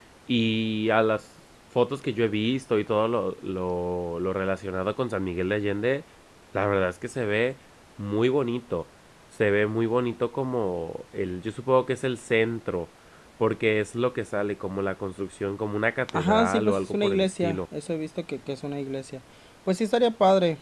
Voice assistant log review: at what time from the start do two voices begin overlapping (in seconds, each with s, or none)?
16.1 s